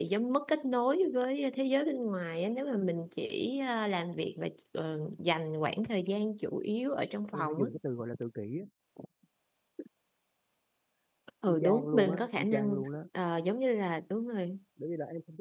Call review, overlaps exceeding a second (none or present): present